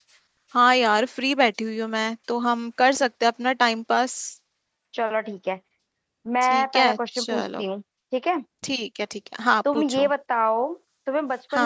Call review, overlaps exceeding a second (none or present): present